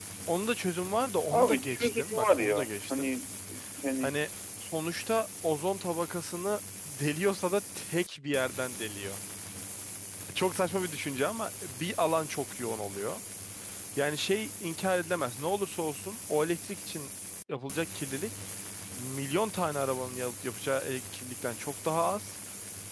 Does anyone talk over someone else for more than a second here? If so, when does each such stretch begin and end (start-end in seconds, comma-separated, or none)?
1.3-3.1